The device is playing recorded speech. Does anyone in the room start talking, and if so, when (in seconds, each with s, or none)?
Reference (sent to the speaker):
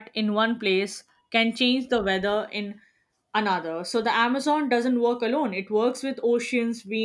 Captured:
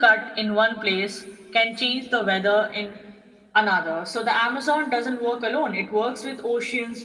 none